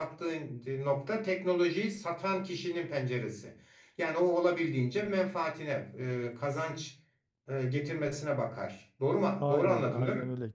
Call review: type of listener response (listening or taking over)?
taking over